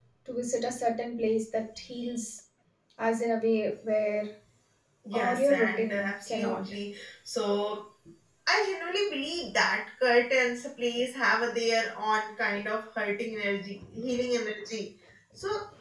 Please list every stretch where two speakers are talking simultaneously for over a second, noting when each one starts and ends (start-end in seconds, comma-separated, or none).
5.1-6.6